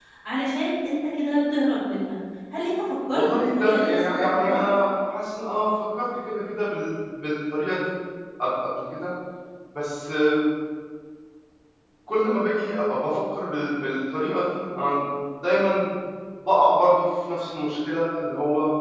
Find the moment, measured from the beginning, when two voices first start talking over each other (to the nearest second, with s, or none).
3 s